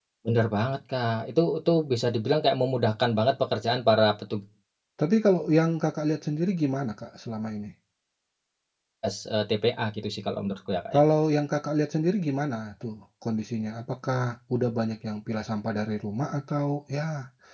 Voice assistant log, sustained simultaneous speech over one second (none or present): none